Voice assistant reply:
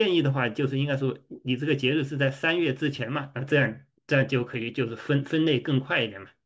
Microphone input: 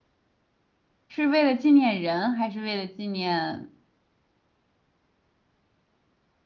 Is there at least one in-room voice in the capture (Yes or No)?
Yes